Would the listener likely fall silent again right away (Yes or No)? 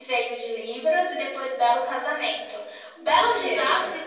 Yes